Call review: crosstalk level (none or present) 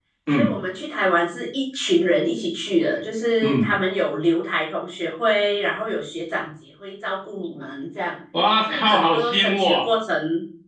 present